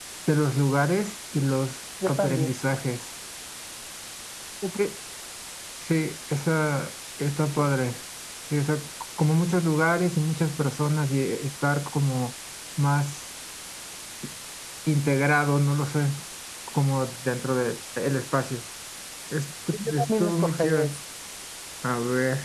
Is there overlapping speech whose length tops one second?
Yes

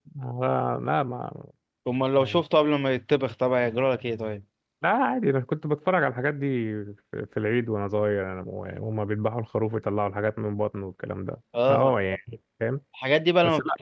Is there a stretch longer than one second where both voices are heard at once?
No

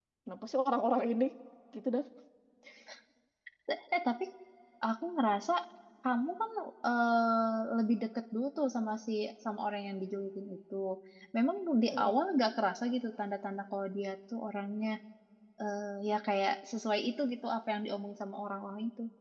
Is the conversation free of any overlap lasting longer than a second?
Yes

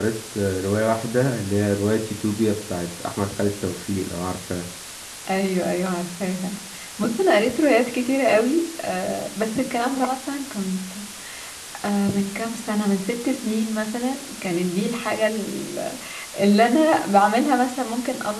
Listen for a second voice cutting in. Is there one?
No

